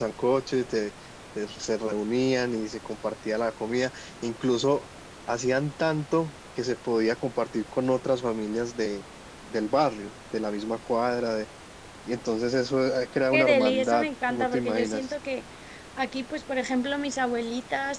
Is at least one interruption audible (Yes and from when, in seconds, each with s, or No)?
Yes, from 13.3 s